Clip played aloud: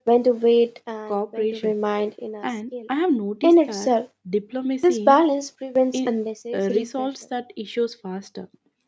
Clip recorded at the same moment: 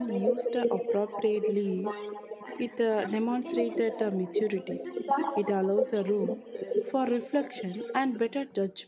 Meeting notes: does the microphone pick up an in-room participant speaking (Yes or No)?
Yes